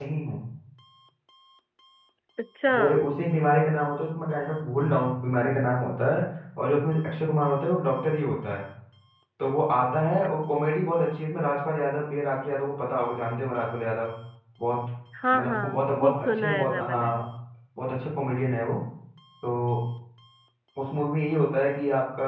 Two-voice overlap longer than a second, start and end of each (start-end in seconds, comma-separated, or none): 15.3-17.1